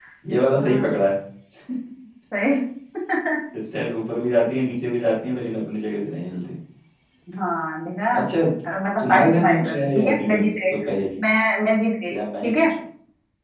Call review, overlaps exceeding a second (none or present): present